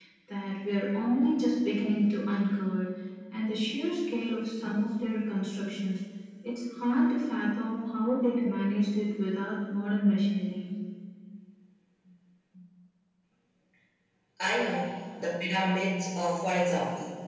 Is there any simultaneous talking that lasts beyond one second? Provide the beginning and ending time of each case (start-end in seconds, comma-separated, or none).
none